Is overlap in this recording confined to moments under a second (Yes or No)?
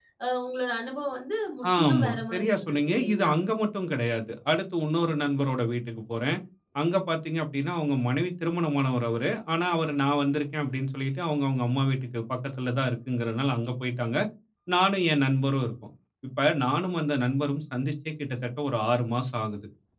No